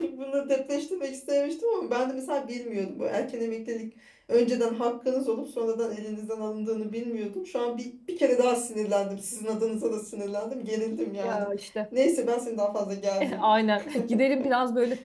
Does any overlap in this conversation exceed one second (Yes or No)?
No